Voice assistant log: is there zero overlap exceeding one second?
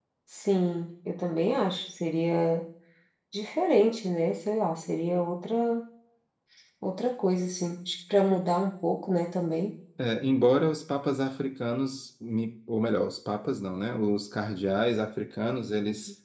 Yes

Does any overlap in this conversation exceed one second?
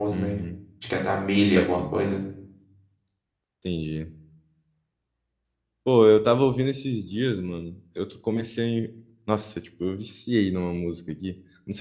No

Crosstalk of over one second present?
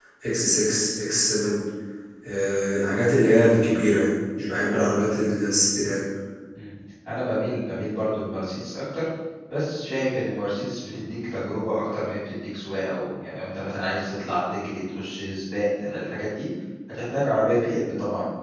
No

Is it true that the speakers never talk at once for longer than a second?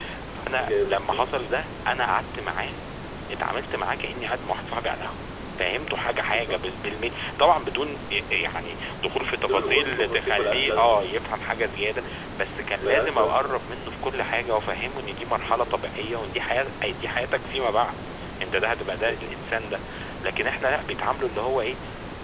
No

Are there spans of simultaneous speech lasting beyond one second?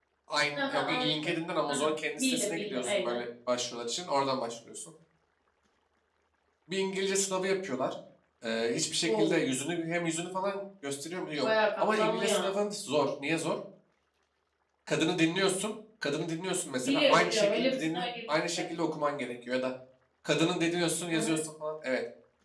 Yes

